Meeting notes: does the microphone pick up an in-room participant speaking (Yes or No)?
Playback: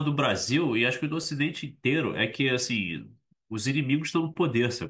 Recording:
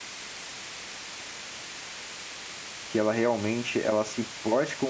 Yes